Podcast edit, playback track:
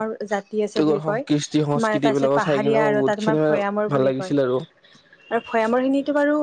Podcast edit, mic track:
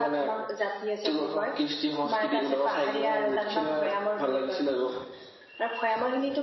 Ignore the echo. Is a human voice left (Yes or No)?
No